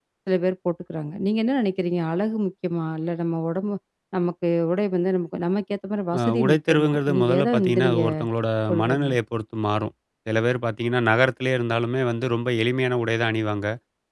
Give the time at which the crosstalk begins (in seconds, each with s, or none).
6.2 s